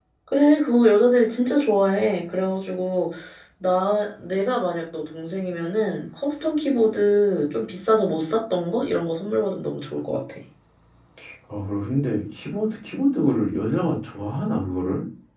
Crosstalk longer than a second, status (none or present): none